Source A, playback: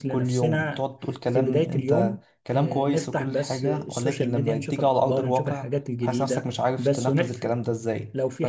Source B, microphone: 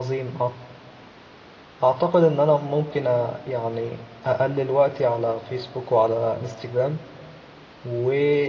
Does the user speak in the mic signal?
Yes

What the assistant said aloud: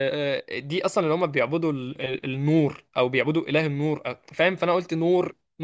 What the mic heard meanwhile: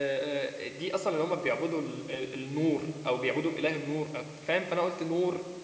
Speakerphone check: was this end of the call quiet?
Yes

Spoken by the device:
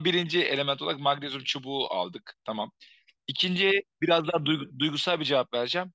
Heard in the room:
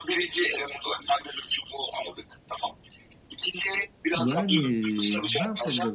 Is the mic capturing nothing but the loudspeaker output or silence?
No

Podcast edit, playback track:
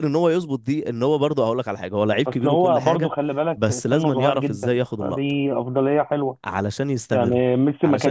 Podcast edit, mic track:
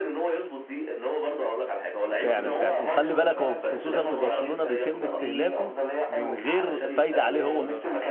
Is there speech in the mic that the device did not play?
Yes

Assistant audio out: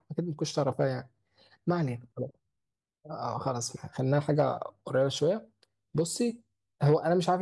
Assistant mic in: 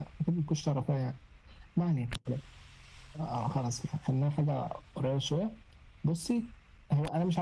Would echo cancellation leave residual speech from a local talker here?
No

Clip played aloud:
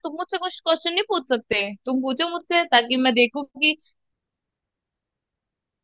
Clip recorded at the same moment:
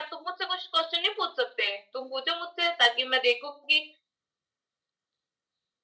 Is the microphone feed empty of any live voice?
Yes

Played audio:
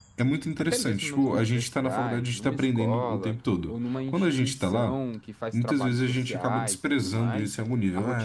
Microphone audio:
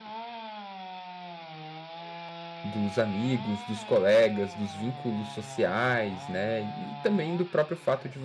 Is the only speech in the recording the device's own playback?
No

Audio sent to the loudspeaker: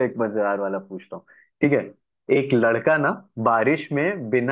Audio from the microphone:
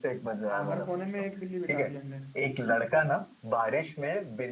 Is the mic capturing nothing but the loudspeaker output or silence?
No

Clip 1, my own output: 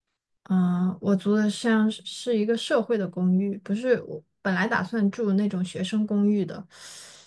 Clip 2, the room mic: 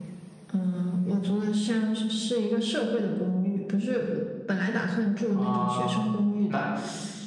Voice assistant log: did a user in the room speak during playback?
Yes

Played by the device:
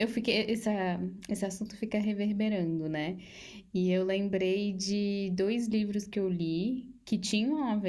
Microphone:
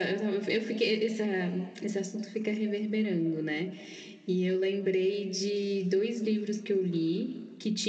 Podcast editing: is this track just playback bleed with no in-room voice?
Yes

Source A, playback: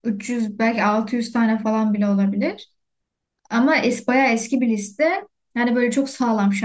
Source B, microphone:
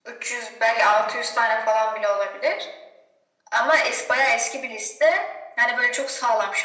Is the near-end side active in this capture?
No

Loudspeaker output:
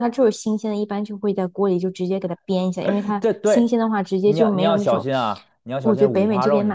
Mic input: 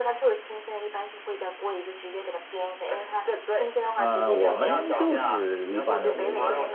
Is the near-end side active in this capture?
Yes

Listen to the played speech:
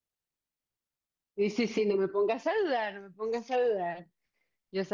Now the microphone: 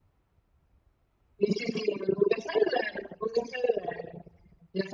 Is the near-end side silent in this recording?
Yes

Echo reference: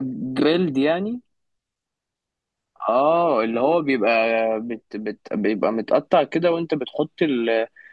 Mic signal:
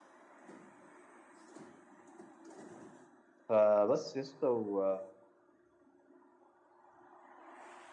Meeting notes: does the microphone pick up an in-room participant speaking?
Yes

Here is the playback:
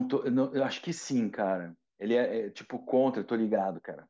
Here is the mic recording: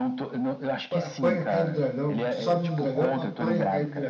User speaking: Yes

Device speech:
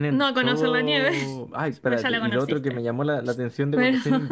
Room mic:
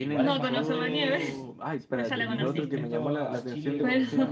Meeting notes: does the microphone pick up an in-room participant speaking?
Yes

